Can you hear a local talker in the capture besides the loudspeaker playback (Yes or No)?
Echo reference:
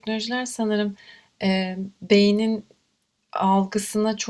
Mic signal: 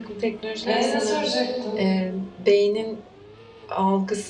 Yes